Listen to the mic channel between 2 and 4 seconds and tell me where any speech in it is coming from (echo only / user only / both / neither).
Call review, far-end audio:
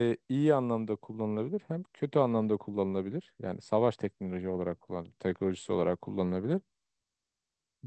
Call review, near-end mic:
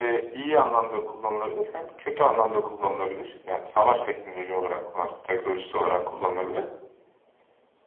echo only